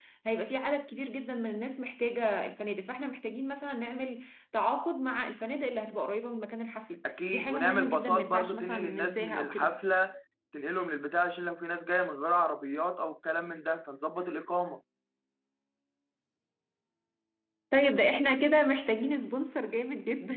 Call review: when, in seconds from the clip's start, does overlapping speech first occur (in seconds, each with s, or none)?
7.0 s